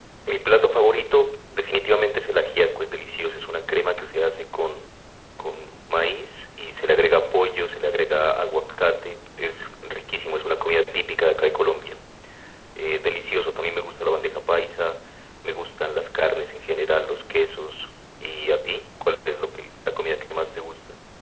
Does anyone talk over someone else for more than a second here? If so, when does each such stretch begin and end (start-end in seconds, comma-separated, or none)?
none